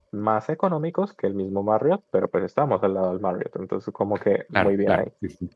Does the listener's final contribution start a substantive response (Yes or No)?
Yes